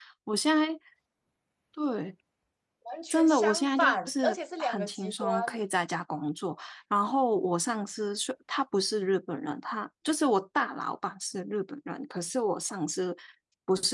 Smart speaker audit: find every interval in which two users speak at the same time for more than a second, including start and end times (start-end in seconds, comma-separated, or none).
3.1-5.6